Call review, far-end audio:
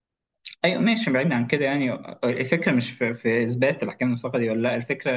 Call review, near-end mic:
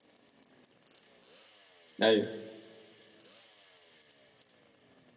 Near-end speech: present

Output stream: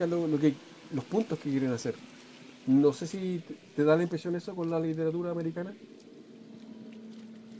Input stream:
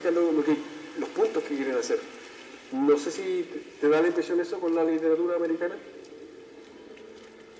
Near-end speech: none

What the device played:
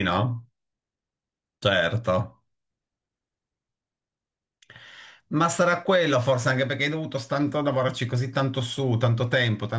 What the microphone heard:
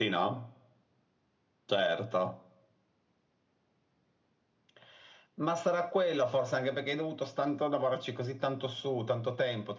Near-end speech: none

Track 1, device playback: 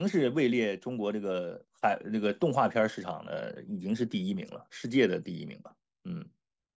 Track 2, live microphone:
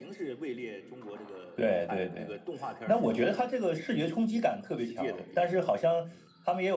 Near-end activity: present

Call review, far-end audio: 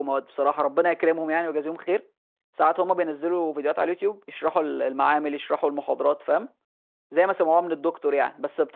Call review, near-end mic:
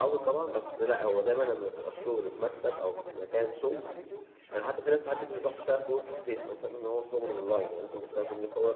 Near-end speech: present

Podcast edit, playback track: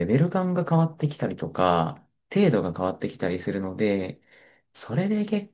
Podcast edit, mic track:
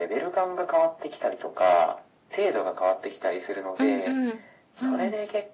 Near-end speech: present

